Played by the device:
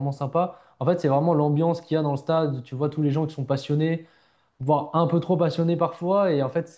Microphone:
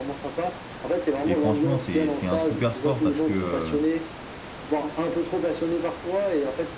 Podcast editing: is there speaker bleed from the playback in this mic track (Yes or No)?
Yes